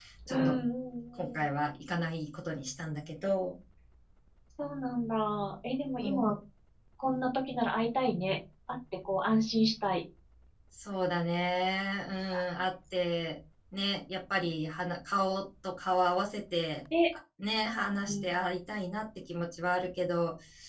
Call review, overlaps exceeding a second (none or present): none